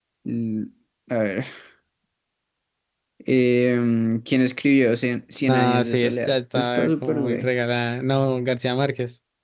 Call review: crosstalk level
present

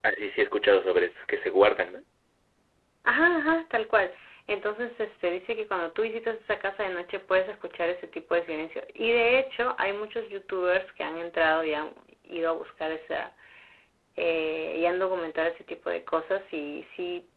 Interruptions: none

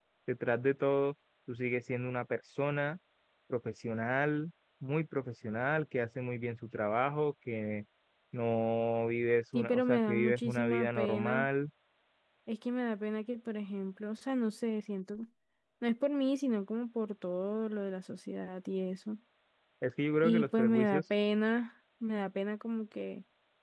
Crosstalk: present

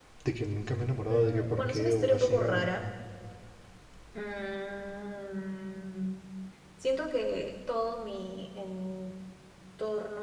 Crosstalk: present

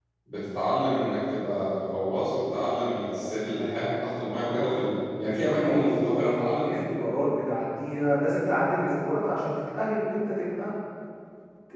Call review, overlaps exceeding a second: present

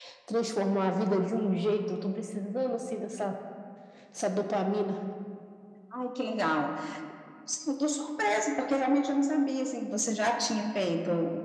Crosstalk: none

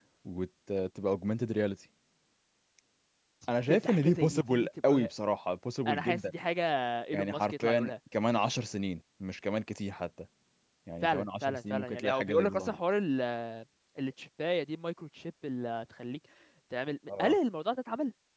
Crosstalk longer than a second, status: present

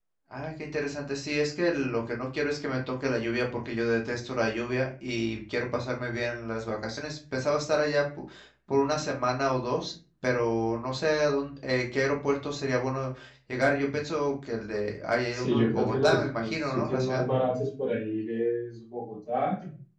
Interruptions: present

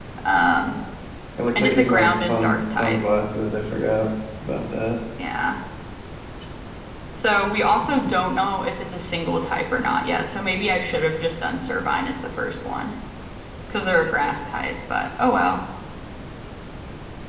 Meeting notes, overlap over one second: present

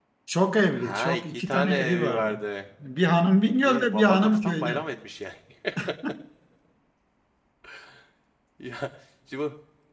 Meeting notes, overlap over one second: present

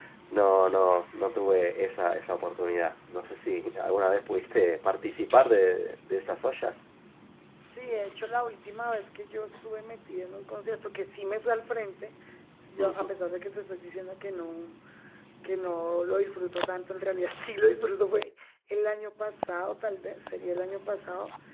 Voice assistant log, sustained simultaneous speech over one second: none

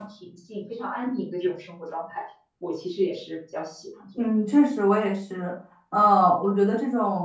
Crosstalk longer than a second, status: none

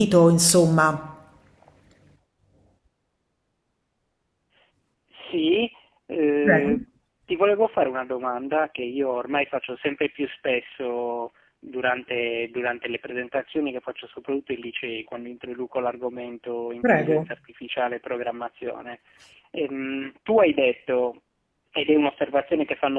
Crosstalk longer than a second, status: none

